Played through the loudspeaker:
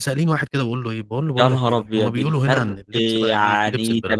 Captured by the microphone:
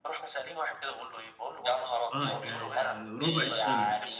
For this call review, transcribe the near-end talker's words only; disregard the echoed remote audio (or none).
آه يعني رُبع التَمَن.